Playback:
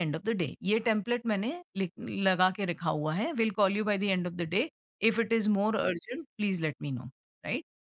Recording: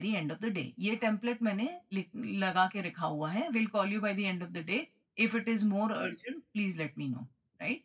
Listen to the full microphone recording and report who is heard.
echo only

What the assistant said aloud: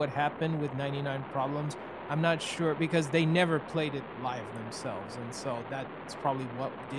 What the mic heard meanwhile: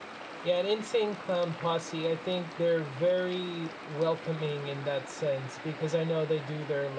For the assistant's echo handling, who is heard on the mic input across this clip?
user only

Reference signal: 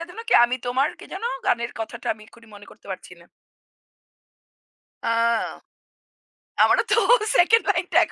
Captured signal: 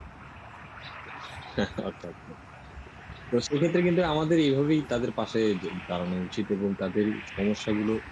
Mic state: user only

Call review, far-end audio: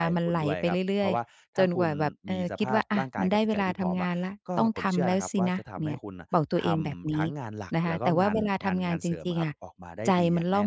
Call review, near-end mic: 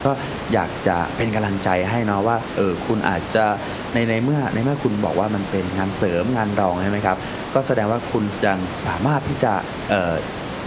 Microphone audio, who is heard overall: user only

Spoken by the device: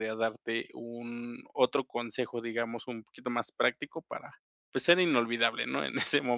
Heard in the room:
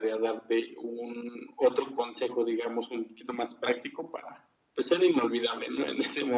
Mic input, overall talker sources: echo only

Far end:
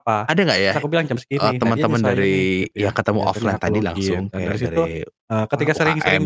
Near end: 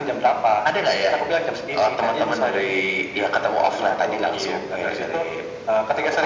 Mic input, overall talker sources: echo only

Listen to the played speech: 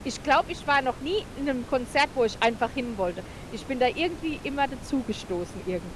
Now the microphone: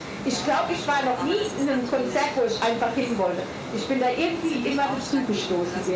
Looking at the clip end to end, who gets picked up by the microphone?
both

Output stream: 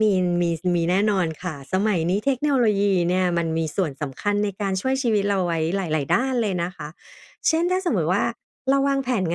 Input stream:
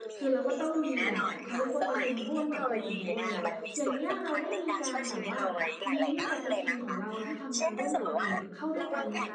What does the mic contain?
both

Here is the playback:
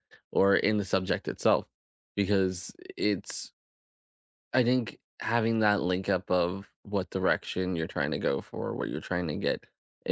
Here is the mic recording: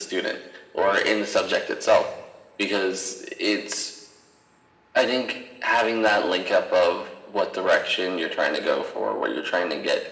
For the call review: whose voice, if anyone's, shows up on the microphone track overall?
echo only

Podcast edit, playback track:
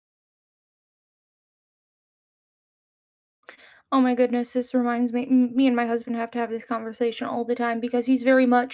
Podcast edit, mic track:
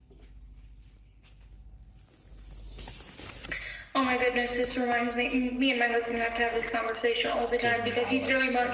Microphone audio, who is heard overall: both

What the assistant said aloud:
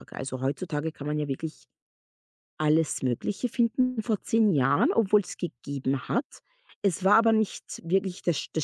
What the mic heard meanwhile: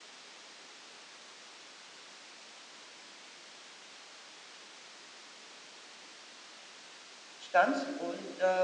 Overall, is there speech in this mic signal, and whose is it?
user only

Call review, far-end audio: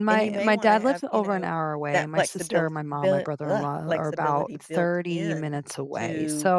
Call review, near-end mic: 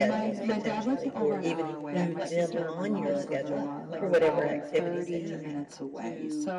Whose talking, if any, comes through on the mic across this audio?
both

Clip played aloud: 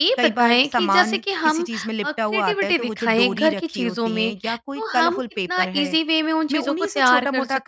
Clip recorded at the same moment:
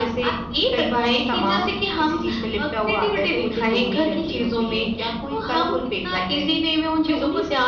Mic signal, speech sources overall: echo only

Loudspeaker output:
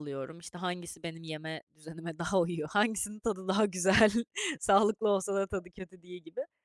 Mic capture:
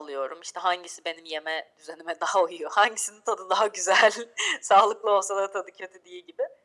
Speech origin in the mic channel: echo only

